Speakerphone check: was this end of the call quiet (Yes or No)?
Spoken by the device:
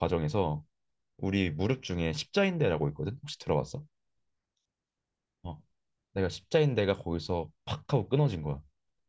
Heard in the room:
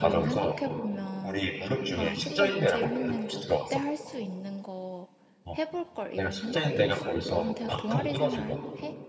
No